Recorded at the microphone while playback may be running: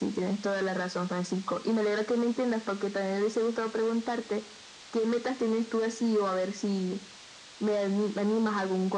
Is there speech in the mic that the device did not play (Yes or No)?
No